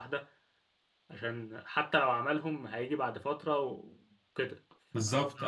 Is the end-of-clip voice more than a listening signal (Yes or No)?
Yes